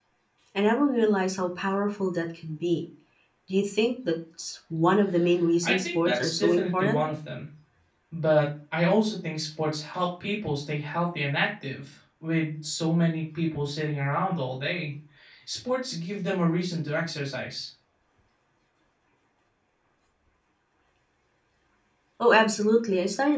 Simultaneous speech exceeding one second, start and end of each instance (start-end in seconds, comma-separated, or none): 5.6-7.0